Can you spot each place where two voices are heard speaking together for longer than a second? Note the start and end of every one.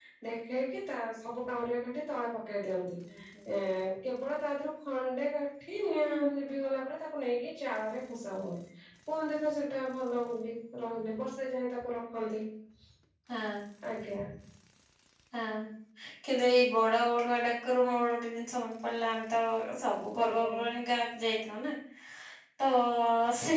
none

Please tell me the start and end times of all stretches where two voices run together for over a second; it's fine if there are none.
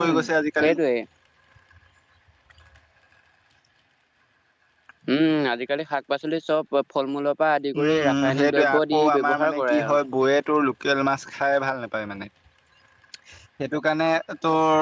7.8-10.0

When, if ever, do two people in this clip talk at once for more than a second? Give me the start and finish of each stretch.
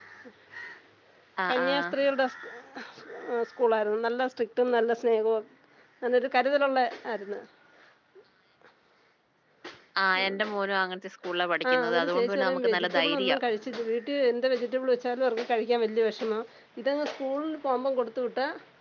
11.7-13.3

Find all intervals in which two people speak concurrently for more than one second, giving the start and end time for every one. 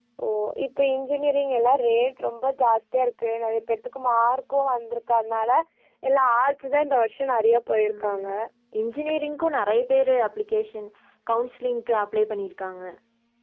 none

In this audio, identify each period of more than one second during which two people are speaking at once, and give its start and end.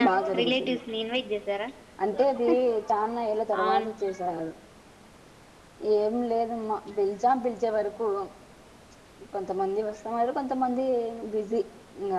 none

